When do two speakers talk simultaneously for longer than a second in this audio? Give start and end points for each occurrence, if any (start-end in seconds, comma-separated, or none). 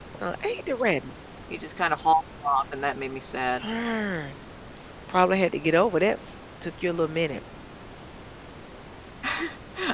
none